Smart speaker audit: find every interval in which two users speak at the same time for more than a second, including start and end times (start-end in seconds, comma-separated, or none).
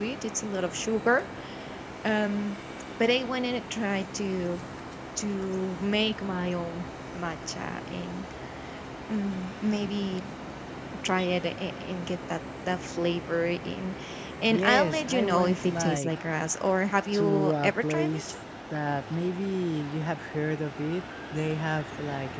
14.5-16.2, 17.1-18.4